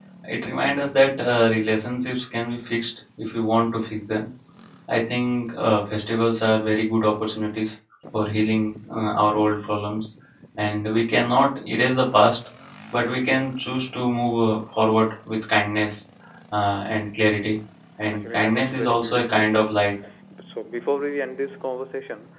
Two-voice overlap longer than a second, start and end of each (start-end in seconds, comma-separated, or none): 18.1-19.8